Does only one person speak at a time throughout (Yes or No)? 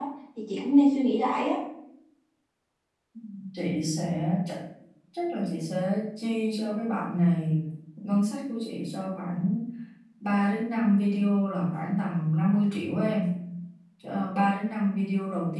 Yes